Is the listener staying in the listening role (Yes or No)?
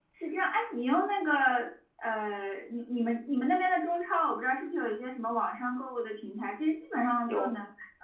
Yes